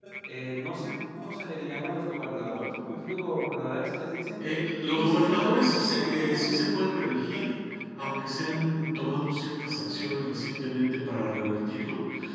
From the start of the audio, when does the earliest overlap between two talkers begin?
5 s

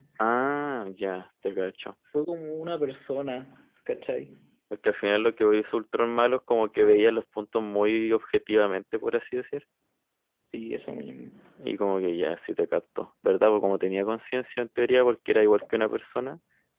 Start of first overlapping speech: none

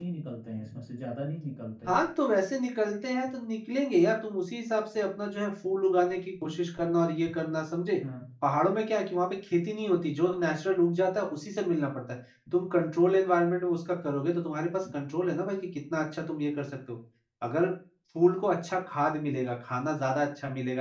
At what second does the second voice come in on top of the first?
none

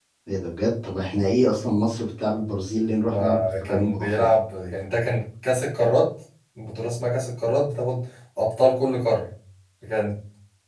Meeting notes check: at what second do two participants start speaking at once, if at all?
3 s

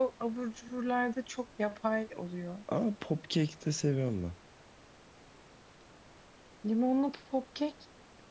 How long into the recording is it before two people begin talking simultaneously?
none

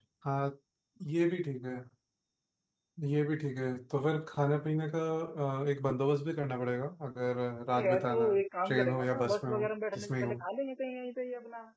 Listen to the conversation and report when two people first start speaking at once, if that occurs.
8 s

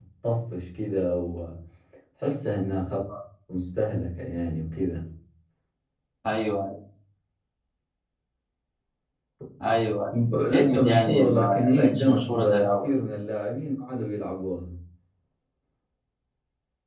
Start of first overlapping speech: 11 s

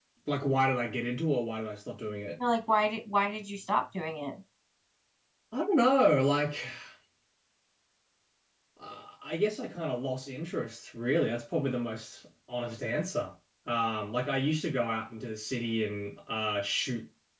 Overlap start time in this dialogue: none

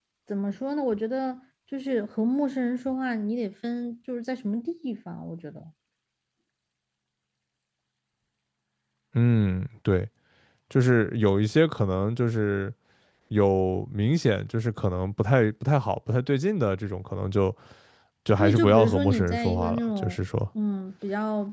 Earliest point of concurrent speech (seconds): 18 s

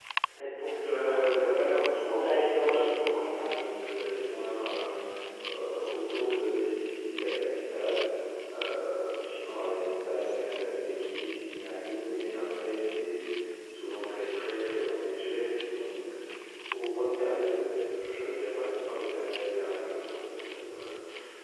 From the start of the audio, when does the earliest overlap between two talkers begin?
1 s

